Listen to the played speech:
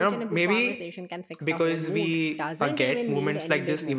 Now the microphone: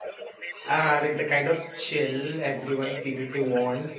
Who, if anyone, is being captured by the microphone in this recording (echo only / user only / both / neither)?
both